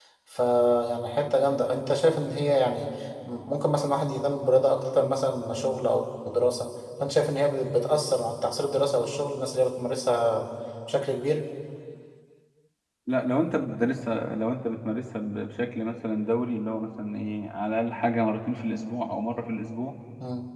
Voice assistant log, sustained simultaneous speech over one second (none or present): none